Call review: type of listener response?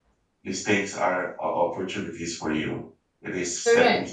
listening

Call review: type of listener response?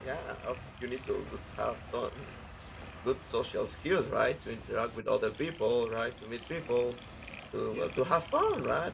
listening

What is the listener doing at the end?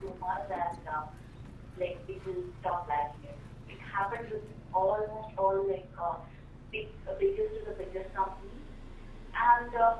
listening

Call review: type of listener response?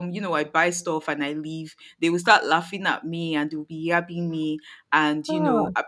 listening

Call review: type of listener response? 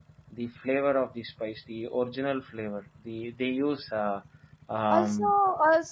taking over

